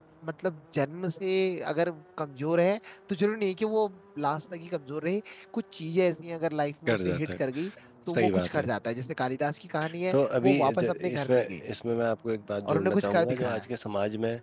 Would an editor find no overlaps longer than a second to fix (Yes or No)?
No